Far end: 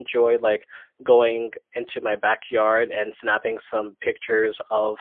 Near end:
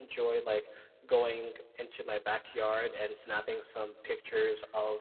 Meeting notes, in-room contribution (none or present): none